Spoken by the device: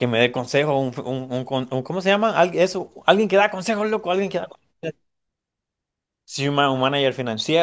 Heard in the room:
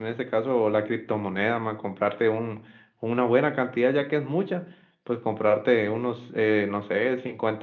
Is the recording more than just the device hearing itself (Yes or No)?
Yes